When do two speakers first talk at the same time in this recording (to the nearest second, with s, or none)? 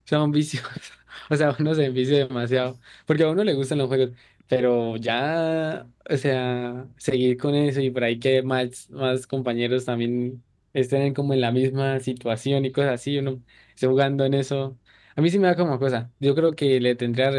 none